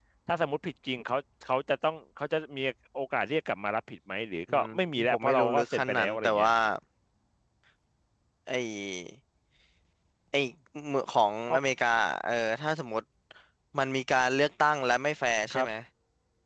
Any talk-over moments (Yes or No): Yes